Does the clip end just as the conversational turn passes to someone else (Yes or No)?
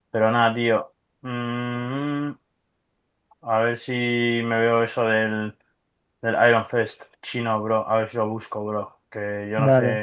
No